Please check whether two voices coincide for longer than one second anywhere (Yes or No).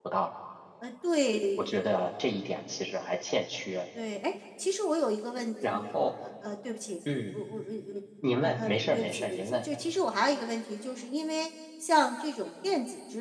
Yes